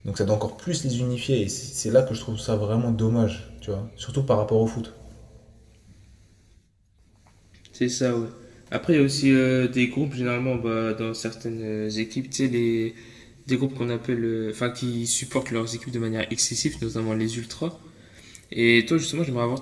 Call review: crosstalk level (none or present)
none